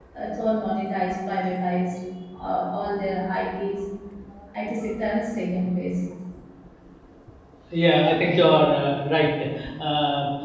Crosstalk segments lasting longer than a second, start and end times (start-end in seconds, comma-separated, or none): none